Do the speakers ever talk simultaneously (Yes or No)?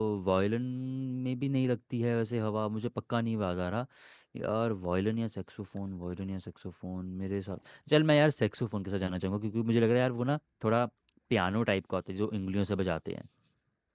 No